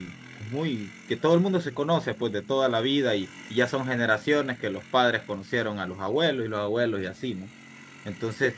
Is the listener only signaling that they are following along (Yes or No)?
Yes